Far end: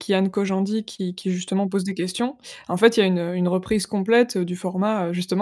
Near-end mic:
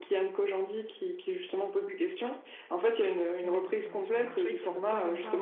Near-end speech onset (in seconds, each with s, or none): 3.4 s